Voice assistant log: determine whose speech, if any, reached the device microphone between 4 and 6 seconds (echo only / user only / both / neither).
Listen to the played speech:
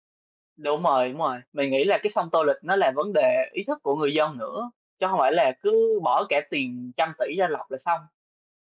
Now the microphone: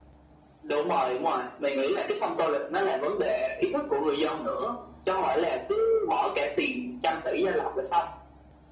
echo only